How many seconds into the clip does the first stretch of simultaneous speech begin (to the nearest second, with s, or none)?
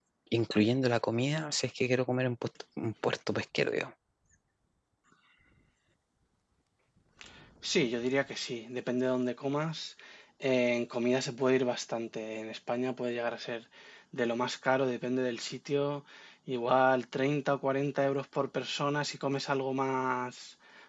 none